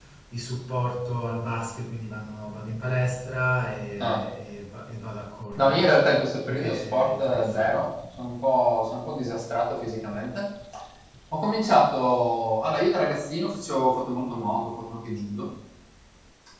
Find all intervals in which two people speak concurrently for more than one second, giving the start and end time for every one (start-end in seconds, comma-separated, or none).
6.4-7.7